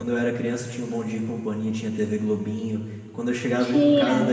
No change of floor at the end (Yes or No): Yes